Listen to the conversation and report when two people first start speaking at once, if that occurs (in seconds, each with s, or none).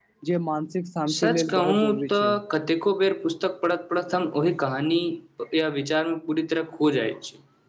1.1 s